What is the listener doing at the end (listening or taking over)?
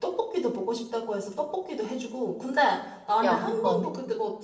listening